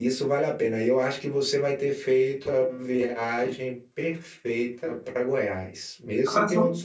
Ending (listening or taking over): listening